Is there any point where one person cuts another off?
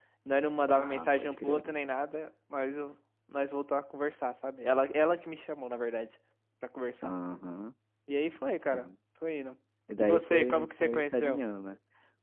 Yes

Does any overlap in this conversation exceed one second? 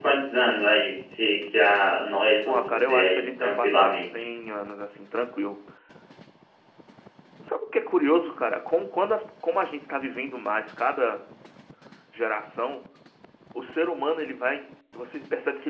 Yes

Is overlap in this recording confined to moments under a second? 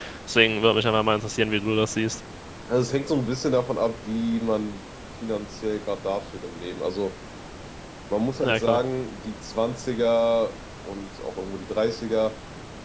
Yes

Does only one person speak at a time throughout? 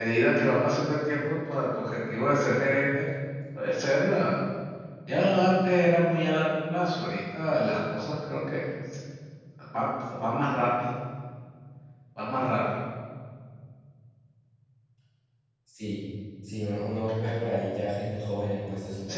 Yes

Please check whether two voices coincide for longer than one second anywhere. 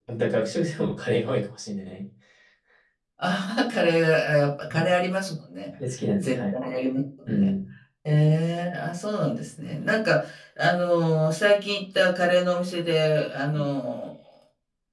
No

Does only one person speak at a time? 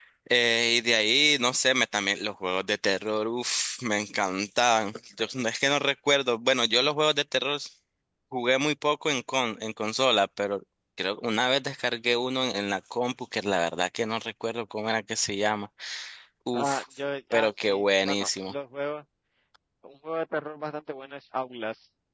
No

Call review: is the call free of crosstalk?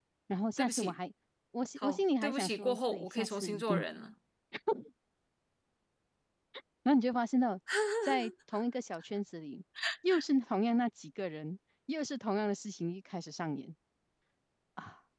No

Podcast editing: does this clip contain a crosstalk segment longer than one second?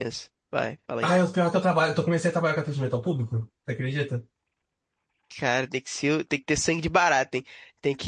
No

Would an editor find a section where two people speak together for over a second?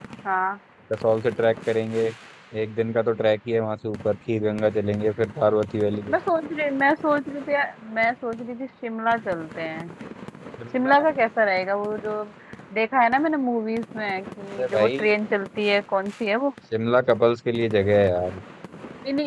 No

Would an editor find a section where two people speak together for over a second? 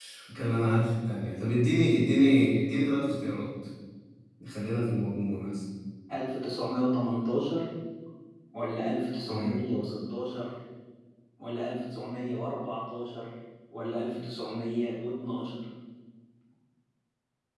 No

